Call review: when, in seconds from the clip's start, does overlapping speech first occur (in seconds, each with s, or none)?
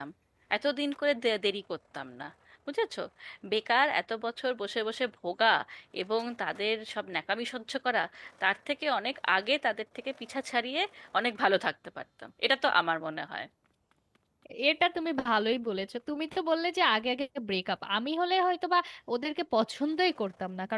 none